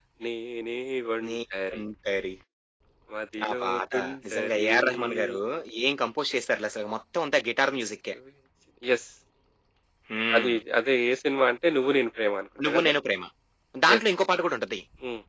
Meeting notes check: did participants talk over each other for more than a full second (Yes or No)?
Yes